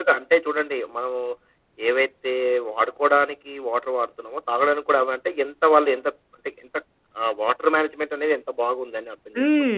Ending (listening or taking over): taking over